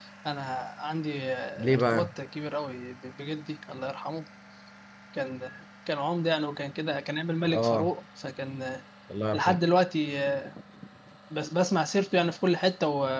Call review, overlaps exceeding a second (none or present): none